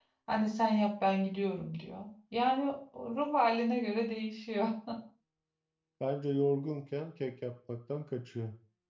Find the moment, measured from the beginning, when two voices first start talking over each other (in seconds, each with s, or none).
none